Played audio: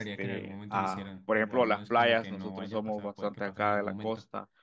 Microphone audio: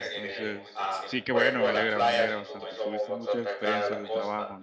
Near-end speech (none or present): present